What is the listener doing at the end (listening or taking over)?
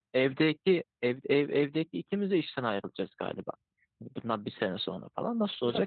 taking over